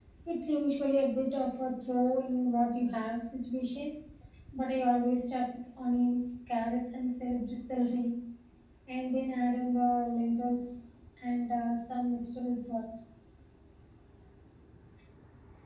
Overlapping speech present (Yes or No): No